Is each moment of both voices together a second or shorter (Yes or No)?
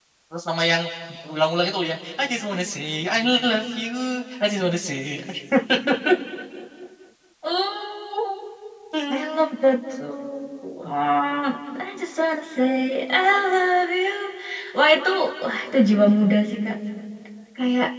Yes